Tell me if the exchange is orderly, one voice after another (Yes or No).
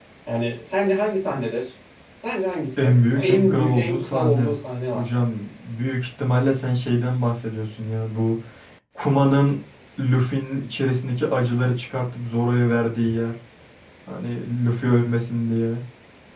No